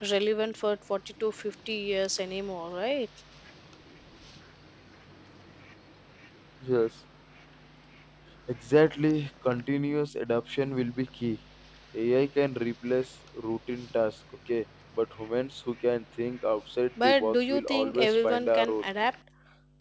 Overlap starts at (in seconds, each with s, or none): 17.0 s